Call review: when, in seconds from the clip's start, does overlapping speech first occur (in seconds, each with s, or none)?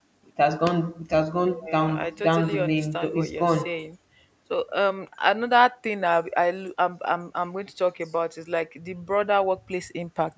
1.7 s